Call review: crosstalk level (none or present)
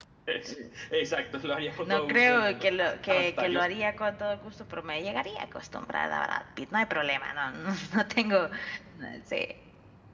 present